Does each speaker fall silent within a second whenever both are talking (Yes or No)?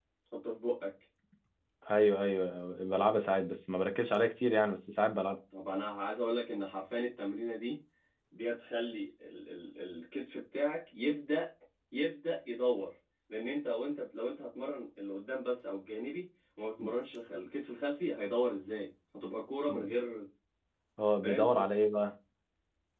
Yes